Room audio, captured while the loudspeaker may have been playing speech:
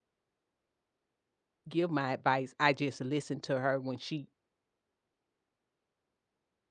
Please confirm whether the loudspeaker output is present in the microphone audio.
No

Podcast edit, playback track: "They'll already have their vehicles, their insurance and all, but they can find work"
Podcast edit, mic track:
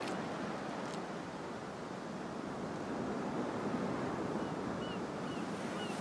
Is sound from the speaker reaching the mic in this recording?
No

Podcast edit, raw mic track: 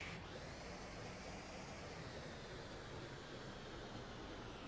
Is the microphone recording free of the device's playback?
Yes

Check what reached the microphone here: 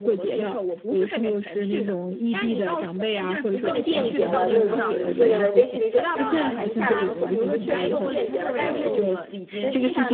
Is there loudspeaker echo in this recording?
Yes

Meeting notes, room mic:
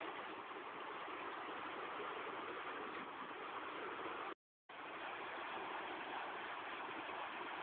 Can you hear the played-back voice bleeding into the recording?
No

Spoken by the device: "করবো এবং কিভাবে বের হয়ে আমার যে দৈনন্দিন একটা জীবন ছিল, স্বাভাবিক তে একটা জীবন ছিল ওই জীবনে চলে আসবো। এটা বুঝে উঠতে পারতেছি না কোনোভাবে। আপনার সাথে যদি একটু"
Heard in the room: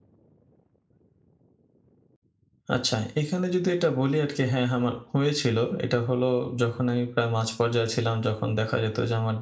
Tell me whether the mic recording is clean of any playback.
Yes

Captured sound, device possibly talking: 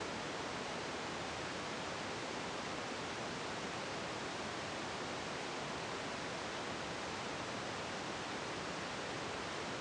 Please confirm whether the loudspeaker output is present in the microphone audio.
No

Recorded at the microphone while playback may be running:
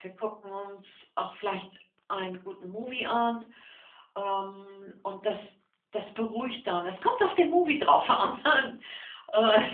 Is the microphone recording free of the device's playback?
Yes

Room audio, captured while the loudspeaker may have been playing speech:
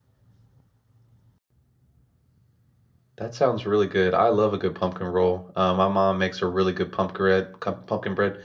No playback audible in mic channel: Yes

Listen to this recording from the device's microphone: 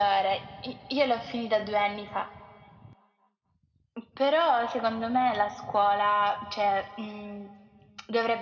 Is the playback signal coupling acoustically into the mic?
Yes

